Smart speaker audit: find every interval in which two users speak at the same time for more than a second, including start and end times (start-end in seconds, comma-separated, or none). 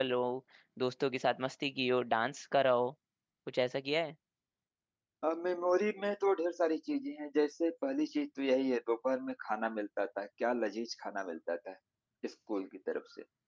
none